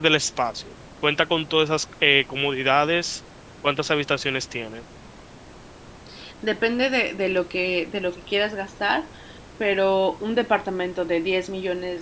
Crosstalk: none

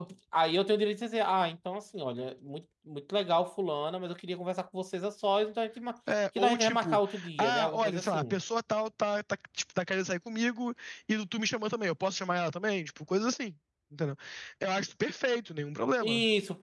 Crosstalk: present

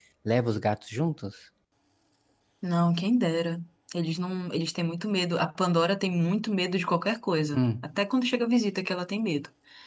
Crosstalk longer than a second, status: none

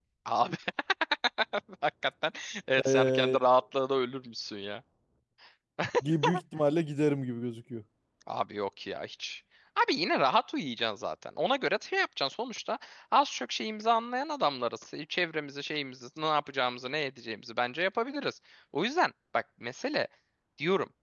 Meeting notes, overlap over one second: none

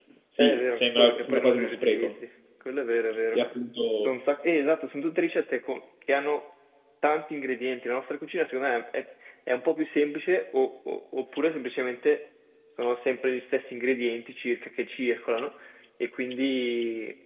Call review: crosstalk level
present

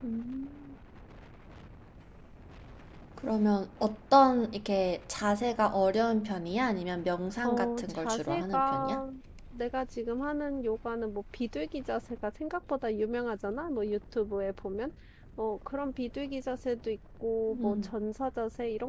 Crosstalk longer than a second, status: present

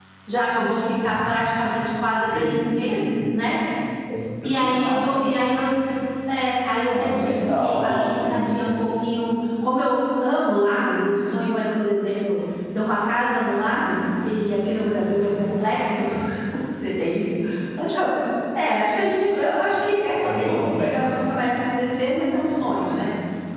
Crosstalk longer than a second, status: present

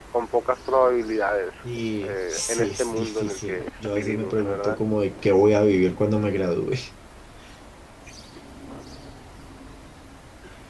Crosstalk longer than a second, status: present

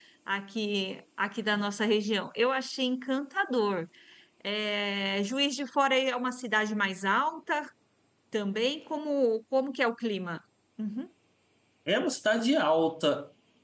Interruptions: none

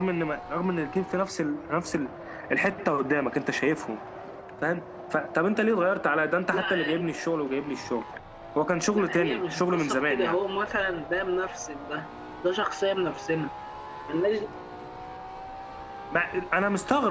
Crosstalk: present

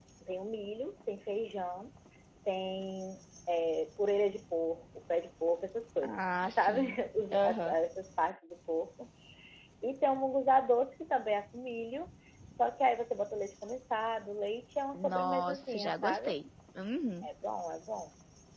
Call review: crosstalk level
present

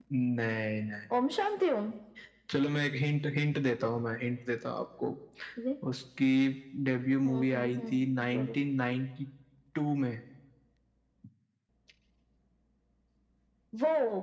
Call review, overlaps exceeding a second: present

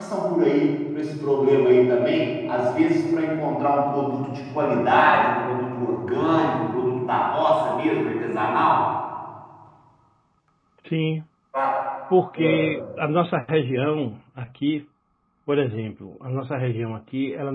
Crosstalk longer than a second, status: none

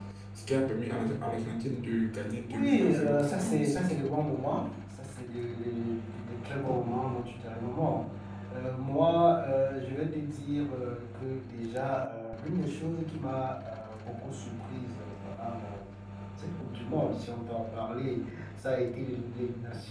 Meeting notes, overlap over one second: present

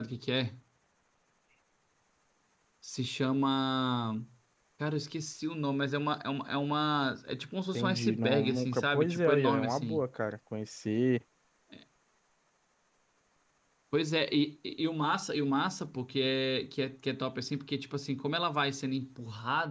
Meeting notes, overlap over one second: present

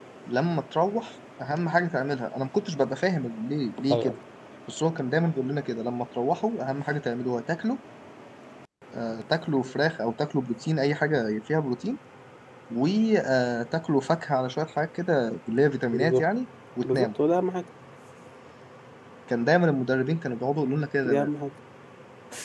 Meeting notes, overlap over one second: none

